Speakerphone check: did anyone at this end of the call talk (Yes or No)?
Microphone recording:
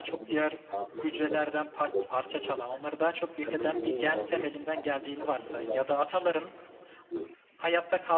Yes